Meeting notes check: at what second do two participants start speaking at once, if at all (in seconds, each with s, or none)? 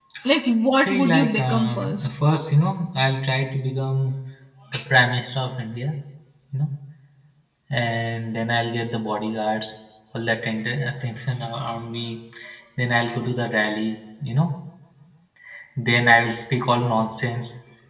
0.7 s